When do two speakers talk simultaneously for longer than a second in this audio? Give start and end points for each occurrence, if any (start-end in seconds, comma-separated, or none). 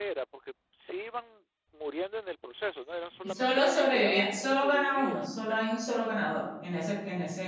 3.2-5.6